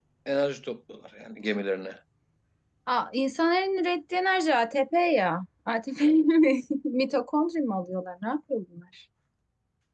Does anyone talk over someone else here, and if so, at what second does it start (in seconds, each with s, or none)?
none